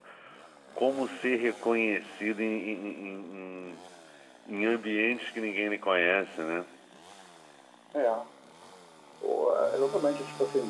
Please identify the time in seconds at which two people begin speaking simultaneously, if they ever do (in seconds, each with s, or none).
none